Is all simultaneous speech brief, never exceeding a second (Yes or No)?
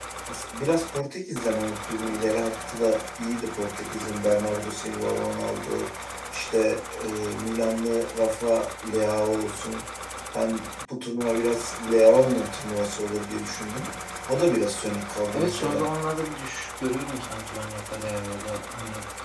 Yes